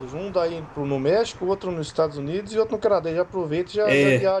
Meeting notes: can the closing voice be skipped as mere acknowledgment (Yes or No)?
No